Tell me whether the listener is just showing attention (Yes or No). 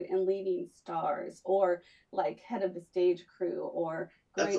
Yes